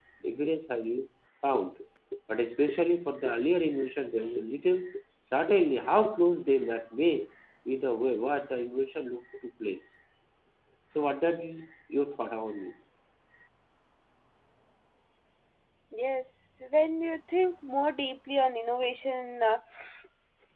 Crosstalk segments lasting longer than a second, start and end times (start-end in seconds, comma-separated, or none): none